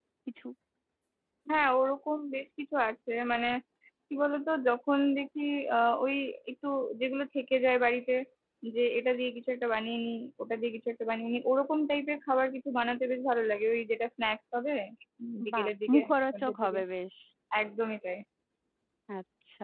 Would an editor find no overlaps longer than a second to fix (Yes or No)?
No